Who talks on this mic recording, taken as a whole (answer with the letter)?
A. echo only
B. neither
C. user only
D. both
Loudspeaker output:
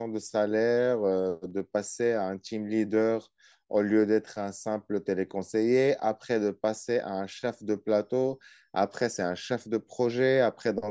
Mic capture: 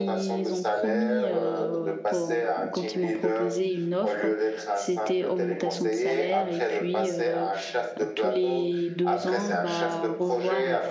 D